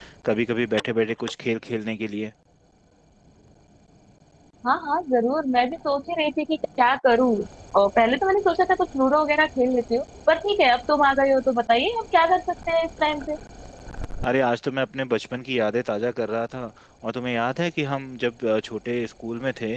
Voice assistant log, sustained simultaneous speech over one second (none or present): none